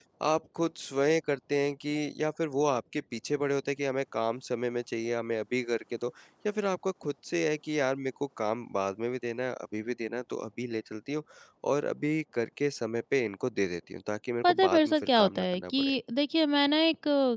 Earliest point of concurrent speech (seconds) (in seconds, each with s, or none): 14.4 s